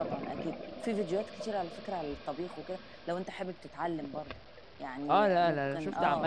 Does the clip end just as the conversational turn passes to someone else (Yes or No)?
Yes